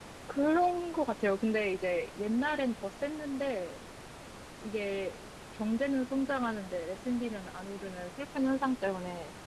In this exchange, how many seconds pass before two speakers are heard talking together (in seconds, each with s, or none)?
none